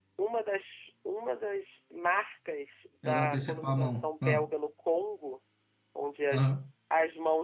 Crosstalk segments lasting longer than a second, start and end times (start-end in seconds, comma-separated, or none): 3.0-4.4